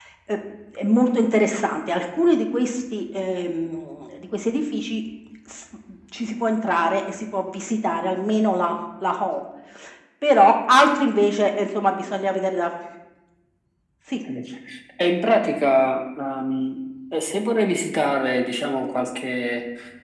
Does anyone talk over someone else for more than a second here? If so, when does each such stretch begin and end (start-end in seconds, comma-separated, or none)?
none